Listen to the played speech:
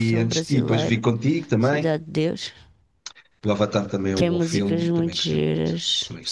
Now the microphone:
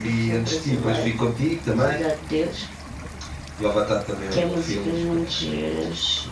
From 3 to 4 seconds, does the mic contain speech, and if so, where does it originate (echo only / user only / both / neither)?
echo only